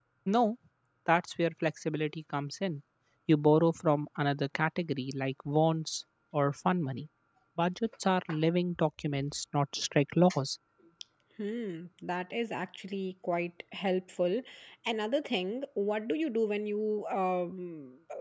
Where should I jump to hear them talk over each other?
none

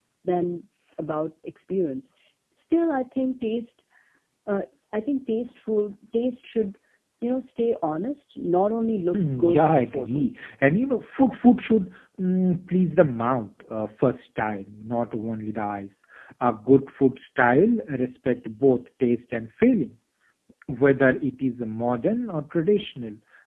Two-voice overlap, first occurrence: 9.1 s

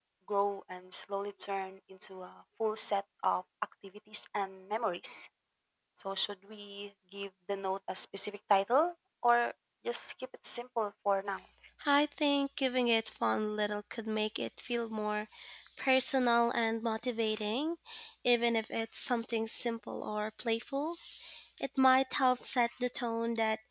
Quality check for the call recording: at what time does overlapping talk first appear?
none

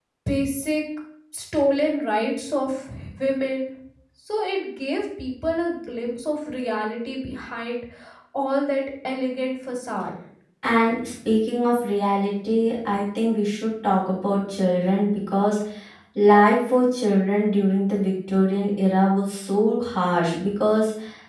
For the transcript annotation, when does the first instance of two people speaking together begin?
none

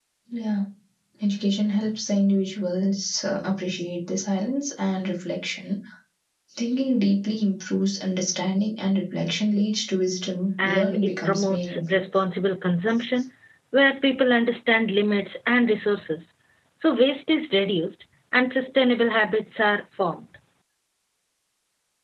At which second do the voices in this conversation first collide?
10.6 s

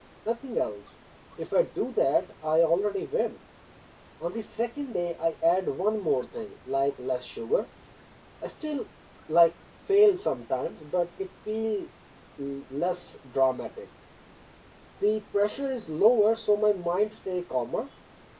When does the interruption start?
none

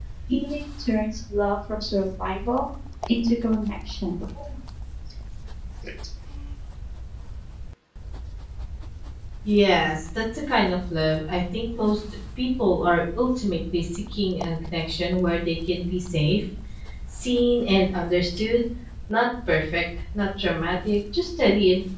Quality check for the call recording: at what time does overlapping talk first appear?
none

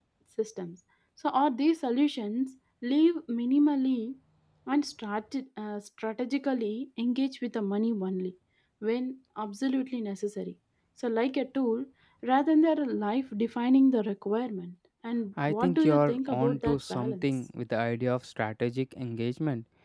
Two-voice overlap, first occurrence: 15.4 s

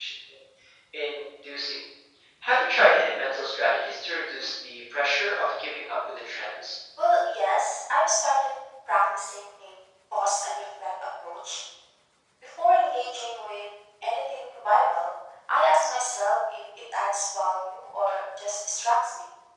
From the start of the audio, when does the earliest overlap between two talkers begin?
none

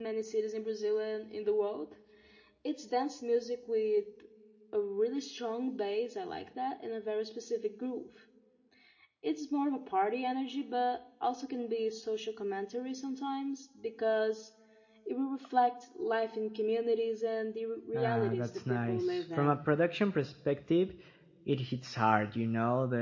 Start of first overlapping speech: 17.9 s

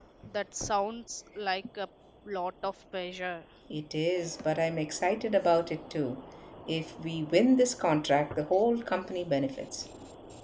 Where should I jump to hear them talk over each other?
none

